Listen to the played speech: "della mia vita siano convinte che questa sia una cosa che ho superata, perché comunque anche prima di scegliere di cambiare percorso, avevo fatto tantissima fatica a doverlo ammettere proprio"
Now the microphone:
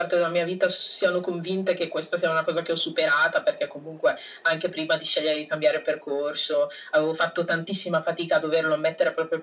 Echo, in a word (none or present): present